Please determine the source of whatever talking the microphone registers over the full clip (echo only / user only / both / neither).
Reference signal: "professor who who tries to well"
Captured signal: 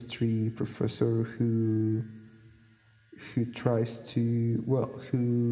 echo only